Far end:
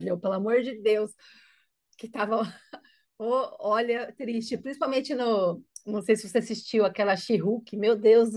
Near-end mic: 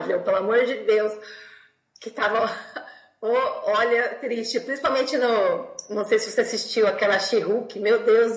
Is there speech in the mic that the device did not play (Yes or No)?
No